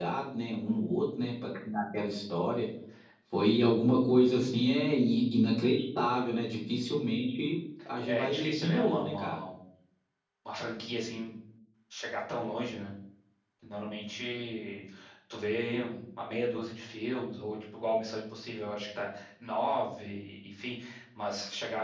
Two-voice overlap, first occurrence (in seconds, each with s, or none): 8.1 s